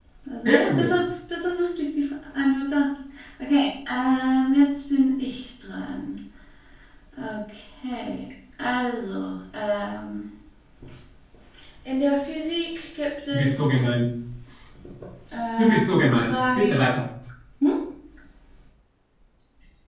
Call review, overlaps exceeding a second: present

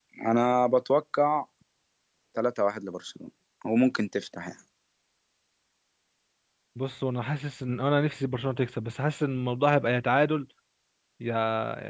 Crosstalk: none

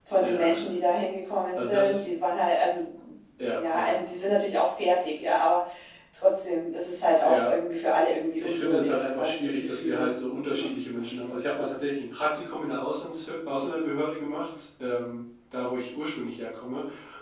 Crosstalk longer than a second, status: present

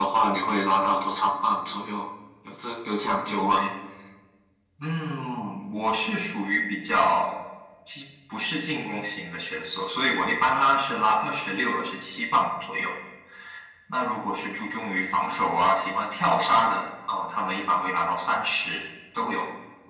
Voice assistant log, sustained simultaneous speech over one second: none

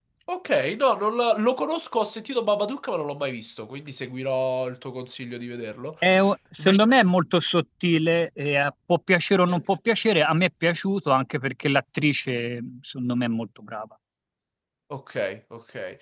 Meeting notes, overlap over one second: none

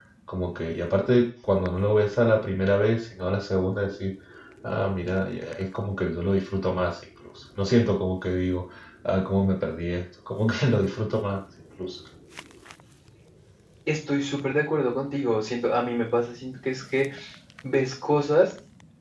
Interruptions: none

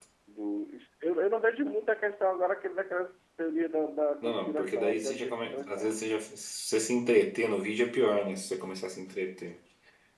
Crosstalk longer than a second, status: present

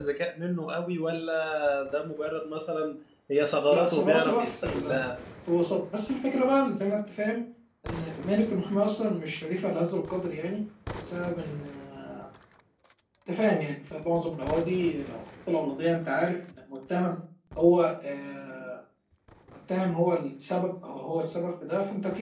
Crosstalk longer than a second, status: present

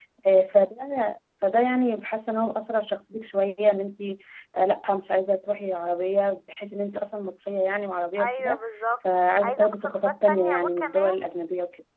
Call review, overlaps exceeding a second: present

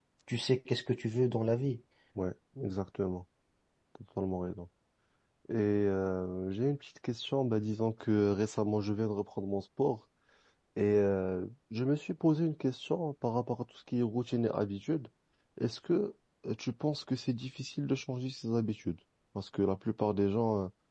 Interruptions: none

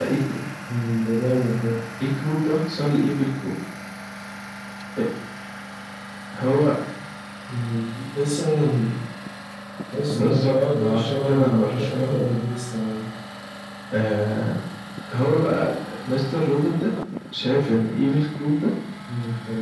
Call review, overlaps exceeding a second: present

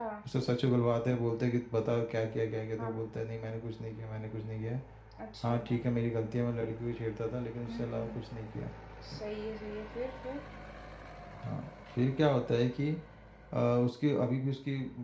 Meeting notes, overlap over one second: none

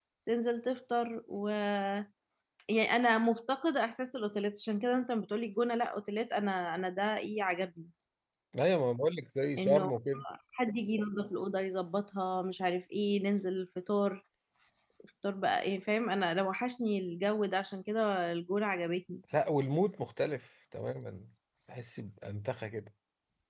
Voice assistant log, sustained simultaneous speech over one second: none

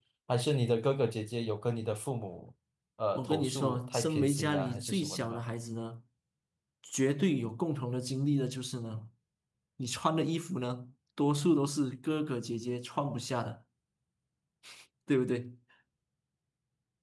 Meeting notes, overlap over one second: present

